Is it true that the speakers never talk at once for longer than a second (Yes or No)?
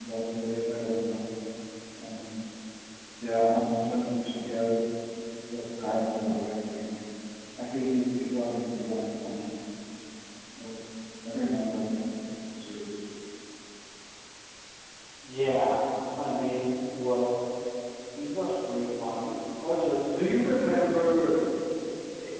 Yes